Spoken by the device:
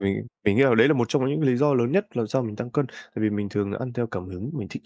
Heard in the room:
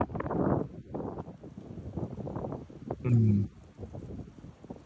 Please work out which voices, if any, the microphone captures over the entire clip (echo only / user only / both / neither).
user only